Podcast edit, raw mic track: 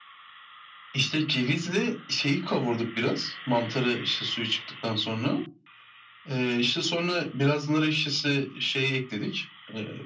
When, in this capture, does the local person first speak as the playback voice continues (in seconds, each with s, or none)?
none